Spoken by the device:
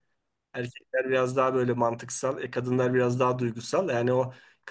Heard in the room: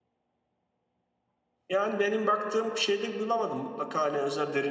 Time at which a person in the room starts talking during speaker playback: 1.7 s

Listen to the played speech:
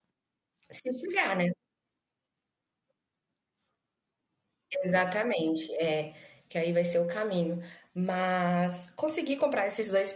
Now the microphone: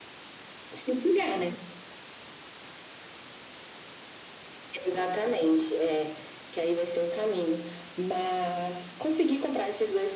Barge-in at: none

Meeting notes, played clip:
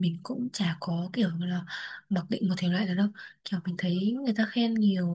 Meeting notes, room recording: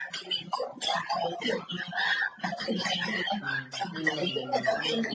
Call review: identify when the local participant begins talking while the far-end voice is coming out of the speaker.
3.4 s

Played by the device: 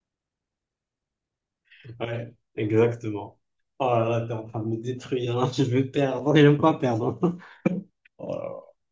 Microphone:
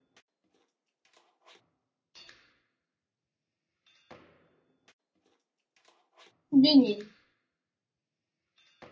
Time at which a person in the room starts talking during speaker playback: 6.5 s

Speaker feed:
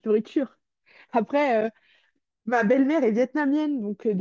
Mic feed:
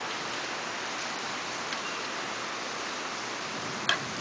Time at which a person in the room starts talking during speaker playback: none

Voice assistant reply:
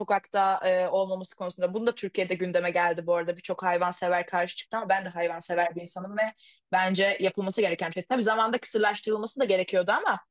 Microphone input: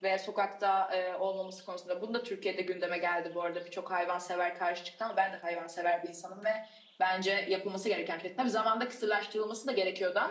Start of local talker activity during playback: none

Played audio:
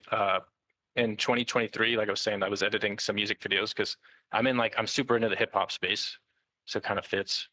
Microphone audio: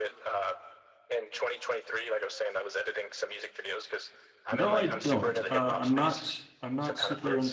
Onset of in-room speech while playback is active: 4.5 s

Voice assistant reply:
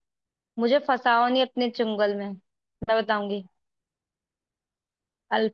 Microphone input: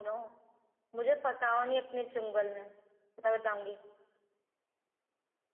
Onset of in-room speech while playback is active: none

